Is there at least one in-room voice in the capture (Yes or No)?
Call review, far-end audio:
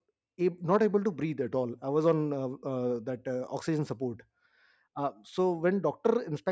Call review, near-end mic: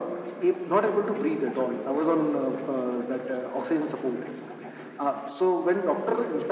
No